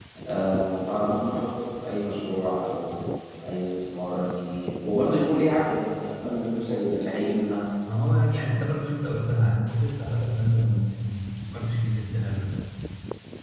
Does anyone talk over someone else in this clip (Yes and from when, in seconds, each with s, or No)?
No